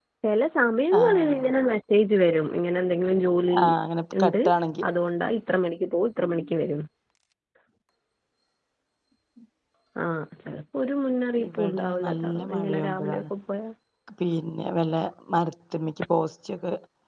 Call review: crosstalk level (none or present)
present